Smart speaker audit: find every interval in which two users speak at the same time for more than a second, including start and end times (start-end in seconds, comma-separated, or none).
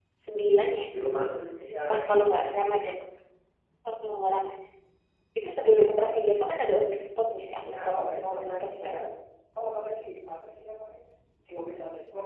7.7-9.0